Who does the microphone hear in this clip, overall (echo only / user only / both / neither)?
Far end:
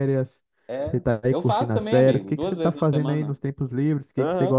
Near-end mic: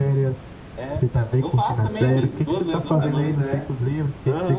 both